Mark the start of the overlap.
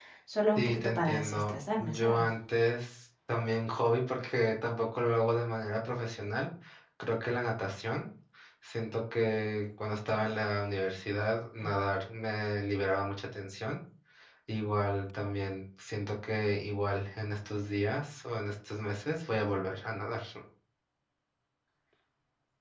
0.6 s

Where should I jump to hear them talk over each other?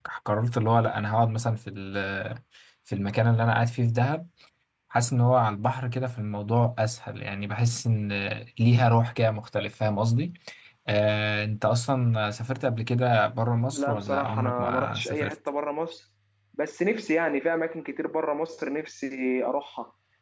13.7 s

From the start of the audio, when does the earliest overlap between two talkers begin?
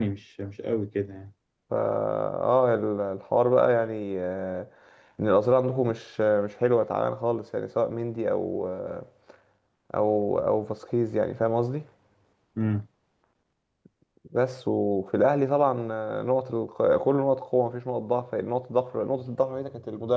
none

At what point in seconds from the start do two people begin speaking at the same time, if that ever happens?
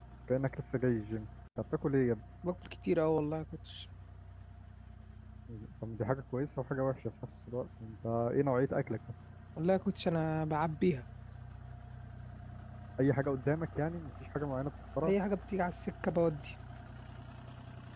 none

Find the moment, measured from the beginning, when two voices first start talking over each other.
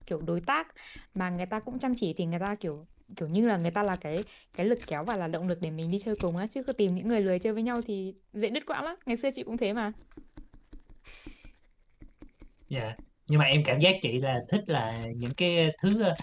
none

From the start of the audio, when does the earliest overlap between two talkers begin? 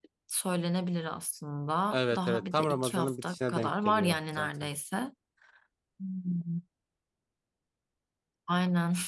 1.9 s

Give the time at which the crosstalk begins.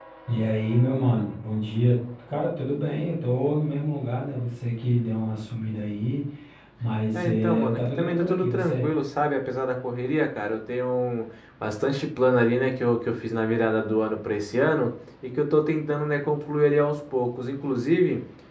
7.1 s

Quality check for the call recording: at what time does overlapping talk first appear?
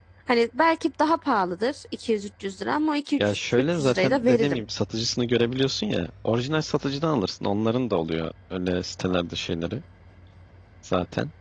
3.2 s

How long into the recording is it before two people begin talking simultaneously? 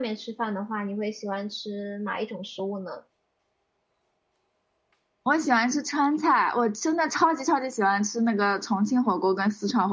none

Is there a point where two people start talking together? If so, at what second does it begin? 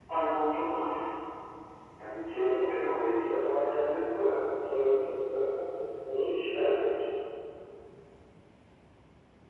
2.3 s

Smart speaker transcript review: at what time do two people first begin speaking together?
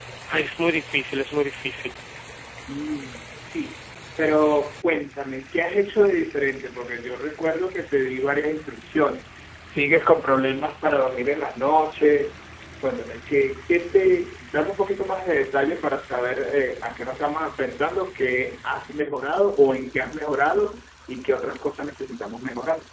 none

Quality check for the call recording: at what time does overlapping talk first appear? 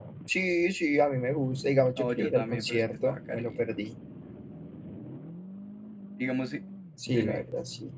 2.0 s

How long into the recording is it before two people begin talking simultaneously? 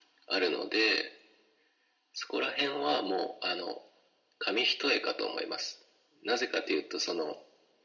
none

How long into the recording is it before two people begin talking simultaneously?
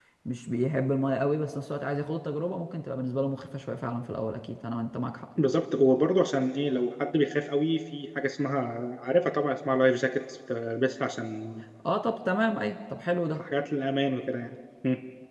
none

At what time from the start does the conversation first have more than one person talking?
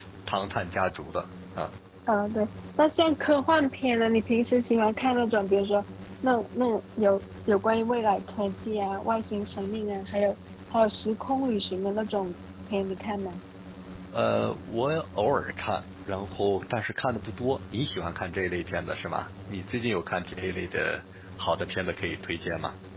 none

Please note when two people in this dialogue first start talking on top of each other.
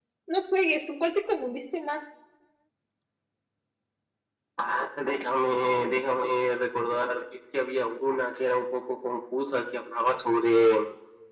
none

